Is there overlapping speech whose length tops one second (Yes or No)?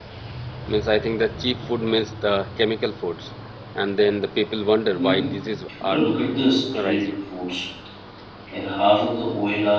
No